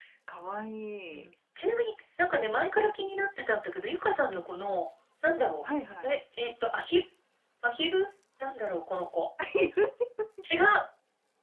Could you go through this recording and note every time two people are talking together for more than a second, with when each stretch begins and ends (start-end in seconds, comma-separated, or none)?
none